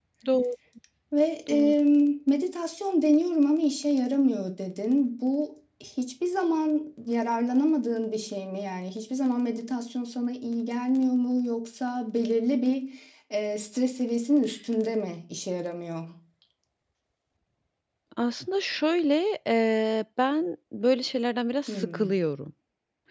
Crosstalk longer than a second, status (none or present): none